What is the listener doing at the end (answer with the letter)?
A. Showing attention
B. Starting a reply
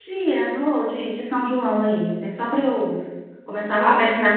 A